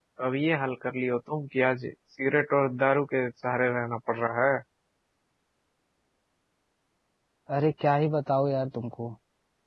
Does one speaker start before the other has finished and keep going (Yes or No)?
No